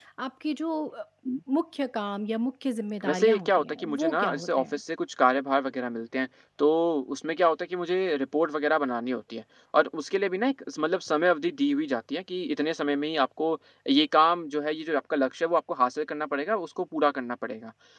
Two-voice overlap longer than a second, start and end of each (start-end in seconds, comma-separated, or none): 3.0-4.8